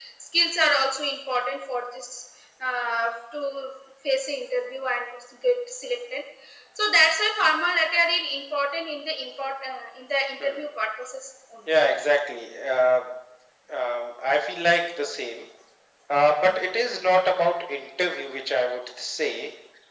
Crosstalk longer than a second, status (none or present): none